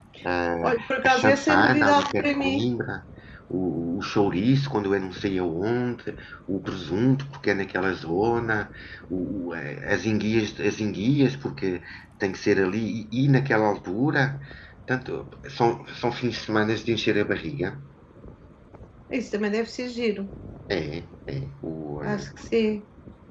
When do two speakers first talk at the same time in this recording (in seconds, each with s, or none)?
0.6 s